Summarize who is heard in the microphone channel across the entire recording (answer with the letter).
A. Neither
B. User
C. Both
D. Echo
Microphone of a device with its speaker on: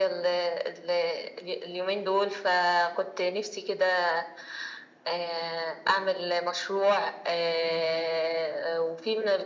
D